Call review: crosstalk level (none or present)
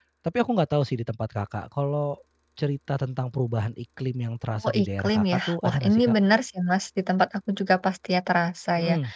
present